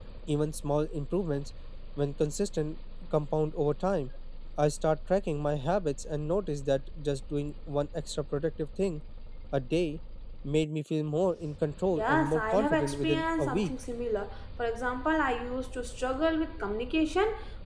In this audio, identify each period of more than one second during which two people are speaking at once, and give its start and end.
11.9-13.7

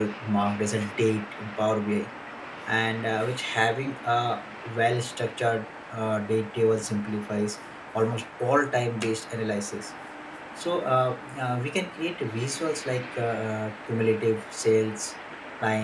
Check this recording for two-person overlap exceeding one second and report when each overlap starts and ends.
none

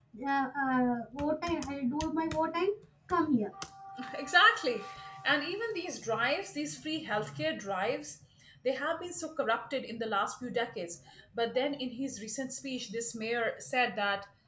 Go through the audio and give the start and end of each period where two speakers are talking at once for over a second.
none

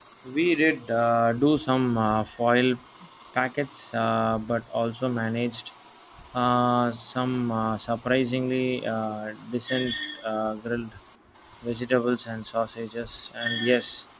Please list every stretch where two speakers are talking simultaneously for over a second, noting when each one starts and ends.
none

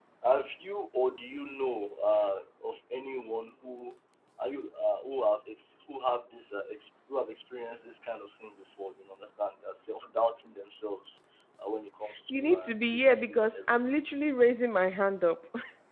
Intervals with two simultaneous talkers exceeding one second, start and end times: 12.3-14.0

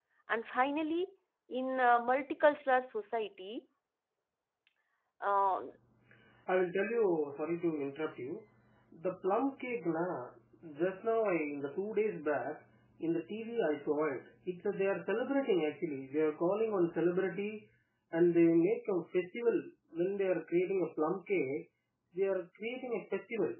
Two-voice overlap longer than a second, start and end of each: none

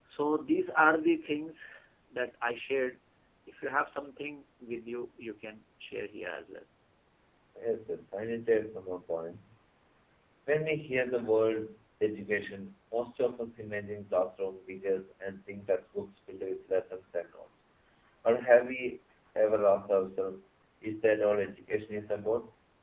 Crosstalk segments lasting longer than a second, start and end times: none

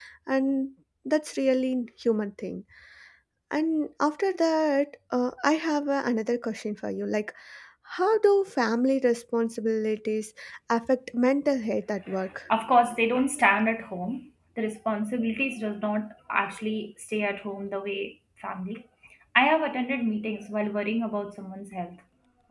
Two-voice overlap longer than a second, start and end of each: none

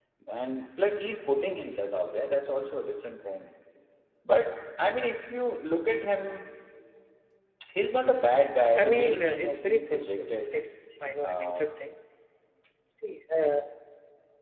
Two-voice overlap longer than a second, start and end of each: 8.8-10.6

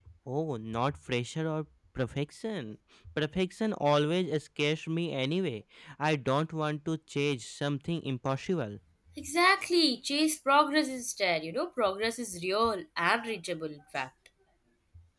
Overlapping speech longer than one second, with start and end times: none

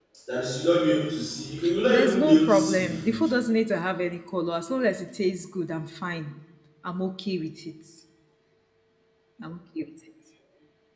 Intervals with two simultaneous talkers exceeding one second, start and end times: 1.9-3.2

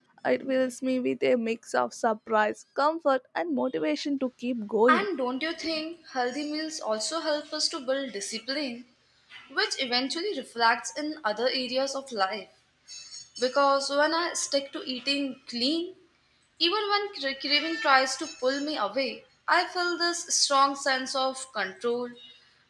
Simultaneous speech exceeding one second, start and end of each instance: none

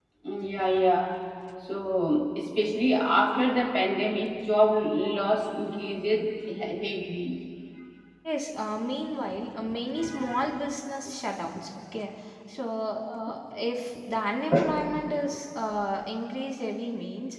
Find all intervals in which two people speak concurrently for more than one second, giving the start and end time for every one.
none

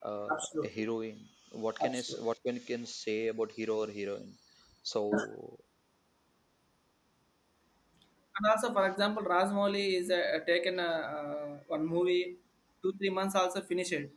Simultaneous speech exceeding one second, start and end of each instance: none

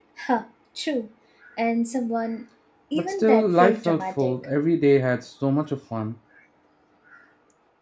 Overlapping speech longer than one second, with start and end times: 3.0-4.4

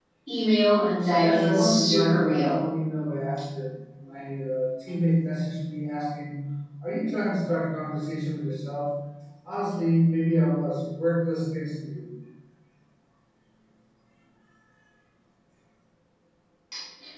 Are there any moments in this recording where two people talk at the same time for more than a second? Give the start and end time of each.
1.2-2.6

